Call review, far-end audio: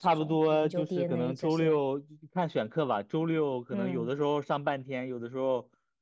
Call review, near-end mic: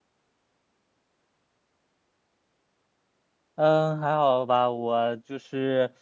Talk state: user only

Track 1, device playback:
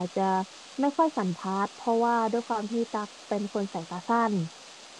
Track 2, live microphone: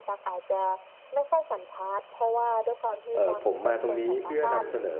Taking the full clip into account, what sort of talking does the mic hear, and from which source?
both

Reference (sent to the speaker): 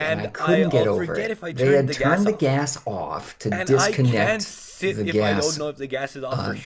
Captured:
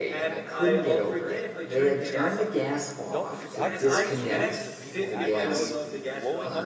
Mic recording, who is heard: both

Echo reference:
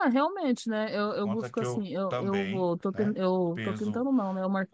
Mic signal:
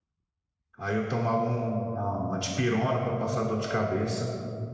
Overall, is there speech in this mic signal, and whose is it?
user only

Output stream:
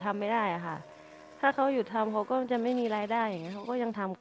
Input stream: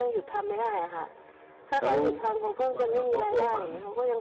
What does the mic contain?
both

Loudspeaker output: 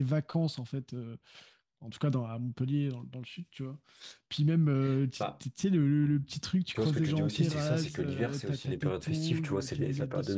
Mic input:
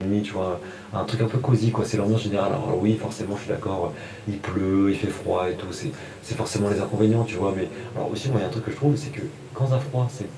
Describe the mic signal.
user only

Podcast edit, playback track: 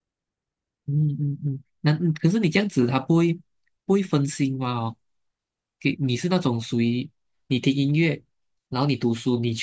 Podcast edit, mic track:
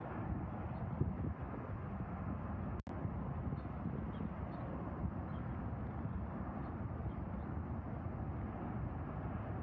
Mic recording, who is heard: neither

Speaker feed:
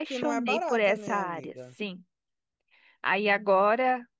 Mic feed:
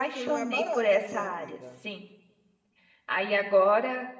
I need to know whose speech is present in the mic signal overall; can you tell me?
echo only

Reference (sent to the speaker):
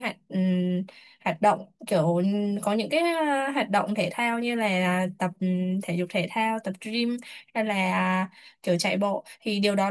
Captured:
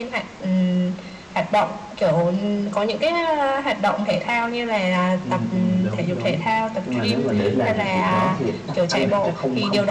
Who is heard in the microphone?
both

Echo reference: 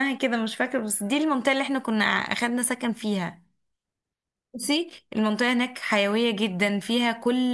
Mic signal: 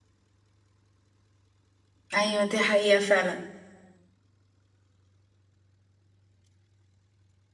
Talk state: user only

